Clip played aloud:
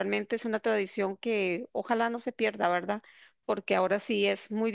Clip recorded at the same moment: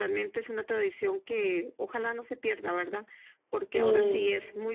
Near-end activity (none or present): present